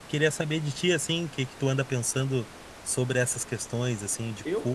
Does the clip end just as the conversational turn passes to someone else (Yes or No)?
Yes